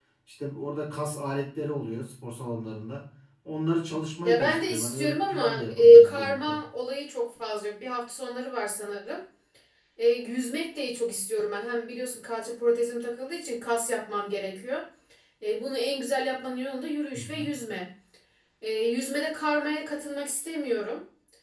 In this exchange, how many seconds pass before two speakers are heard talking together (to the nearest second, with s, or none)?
4 s